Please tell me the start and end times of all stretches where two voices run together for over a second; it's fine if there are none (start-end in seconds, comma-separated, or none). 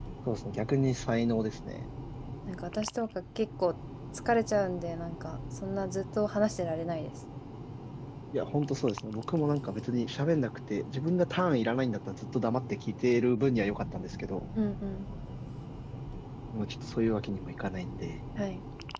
none